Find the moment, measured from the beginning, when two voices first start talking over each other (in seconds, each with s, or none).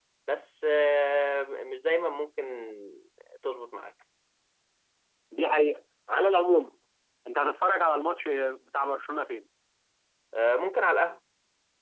none